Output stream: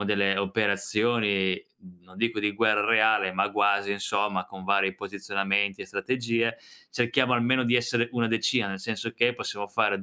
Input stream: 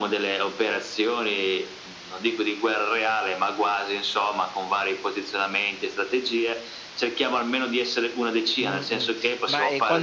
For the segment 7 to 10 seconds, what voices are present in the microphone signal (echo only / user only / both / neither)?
both